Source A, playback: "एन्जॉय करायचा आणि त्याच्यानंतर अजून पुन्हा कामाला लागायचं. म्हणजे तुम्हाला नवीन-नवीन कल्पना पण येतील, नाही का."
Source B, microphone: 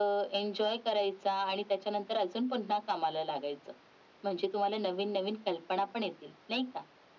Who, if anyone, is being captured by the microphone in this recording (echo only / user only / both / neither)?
echo only